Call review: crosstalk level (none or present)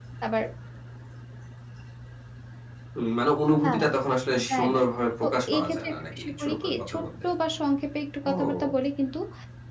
present